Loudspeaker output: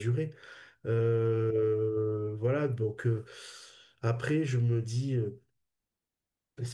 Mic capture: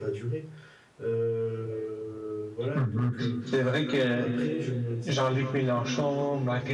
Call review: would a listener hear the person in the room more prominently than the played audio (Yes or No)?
Yes